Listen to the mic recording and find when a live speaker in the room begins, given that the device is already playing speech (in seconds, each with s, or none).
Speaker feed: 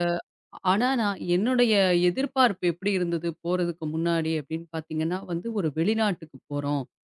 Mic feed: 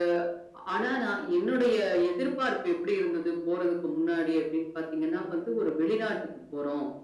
none